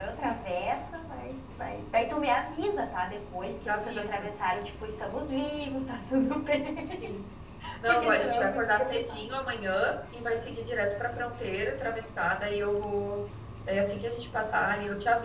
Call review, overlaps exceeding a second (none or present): present